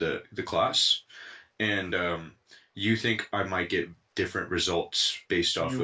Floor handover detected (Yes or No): Yes